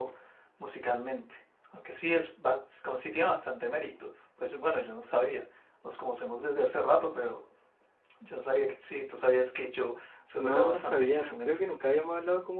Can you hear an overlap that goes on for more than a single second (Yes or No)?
Yes